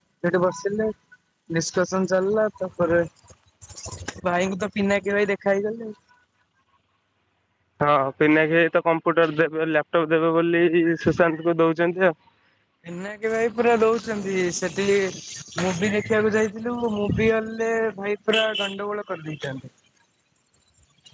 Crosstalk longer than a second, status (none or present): none